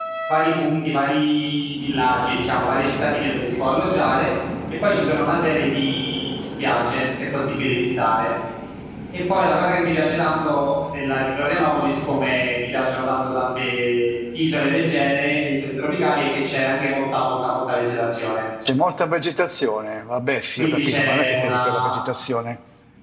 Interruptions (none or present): present